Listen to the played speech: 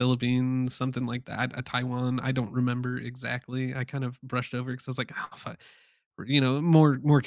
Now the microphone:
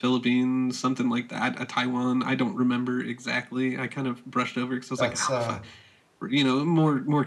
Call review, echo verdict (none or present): present